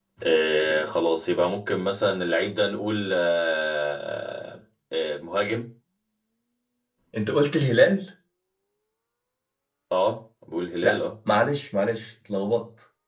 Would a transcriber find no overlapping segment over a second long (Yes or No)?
Yes